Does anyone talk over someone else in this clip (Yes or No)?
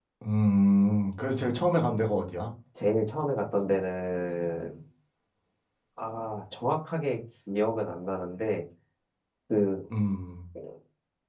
No